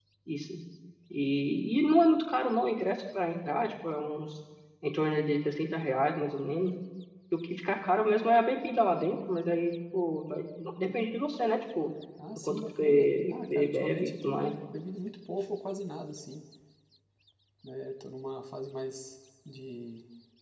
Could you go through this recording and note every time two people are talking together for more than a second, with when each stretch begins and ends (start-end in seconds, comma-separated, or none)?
12.4-14.5